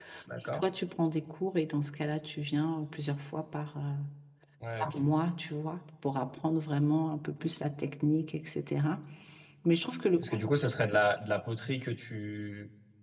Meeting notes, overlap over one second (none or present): none